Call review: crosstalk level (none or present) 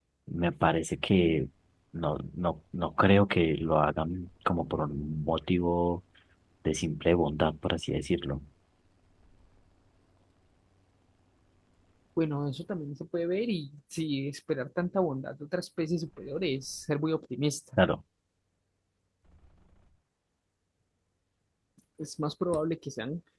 none